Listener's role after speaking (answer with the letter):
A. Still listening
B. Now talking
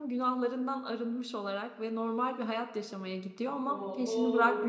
B